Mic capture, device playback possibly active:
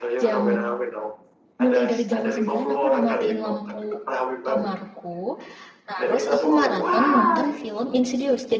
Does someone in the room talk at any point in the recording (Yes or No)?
Yes